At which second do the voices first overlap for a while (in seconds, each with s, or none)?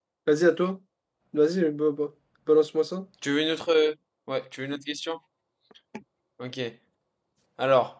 none